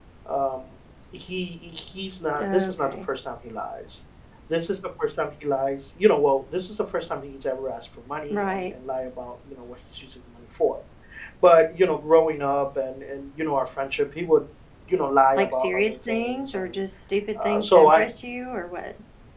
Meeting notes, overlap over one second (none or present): present